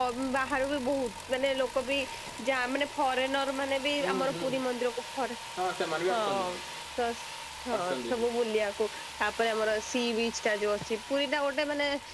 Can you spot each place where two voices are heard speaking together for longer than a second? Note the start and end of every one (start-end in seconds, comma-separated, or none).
none